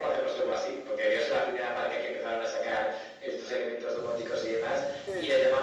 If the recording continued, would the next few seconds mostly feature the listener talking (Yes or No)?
No